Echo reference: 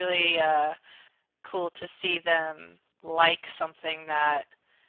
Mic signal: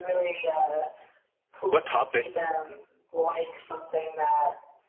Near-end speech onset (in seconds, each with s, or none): 1.6 s